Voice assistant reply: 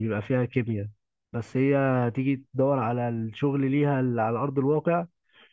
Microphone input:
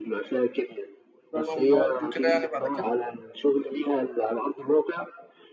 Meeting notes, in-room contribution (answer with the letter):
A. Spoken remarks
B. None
A